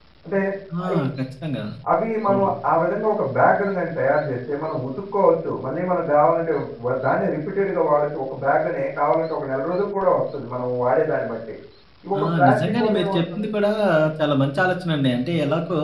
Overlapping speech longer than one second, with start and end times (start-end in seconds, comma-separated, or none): 12.2-13.4